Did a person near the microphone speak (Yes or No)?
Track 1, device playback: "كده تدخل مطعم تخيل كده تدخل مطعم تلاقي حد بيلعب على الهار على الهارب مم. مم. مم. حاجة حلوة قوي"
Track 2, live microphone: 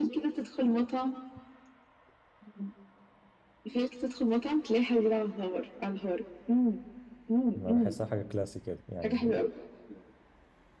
Yes